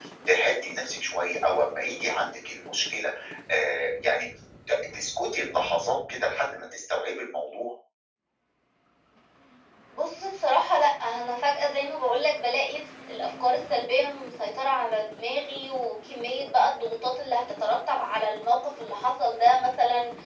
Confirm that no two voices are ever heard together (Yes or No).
Yes